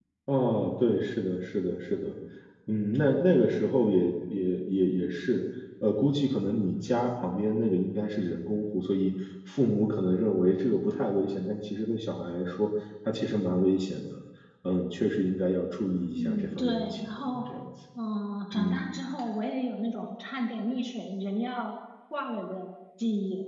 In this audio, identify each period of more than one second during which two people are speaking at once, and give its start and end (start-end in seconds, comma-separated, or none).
16.1-17.4